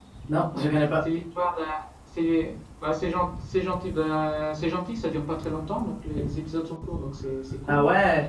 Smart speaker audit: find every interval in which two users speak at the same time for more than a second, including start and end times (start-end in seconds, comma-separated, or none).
none